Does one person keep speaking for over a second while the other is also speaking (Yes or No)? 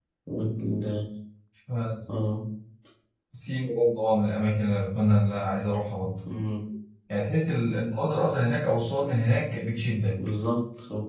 No